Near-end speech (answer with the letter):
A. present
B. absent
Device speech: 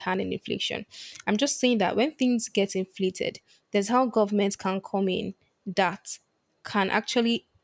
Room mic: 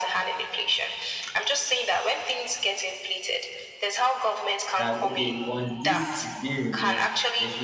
A